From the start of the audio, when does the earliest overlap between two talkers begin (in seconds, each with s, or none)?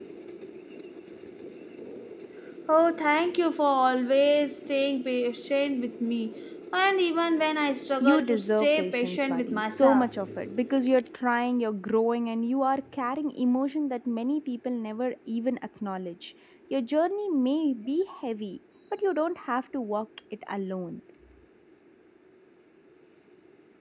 8.0 s